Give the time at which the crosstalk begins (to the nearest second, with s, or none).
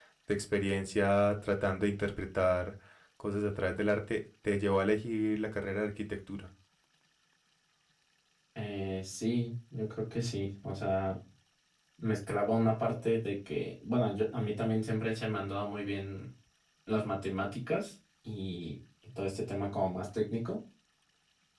none